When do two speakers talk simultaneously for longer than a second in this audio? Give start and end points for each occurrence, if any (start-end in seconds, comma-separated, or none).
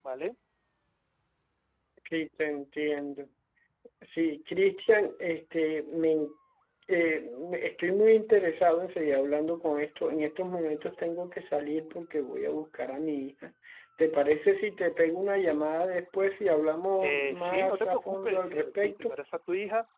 17.0-19.2